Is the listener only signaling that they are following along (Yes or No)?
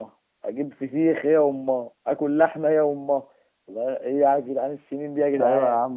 No